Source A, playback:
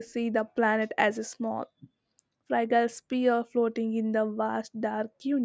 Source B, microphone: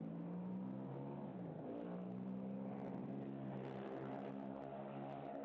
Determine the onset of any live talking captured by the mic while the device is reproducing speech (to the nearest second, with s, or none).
none